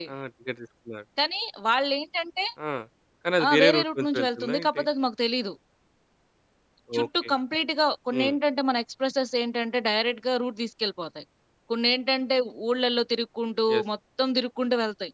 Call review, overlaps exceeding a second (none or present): present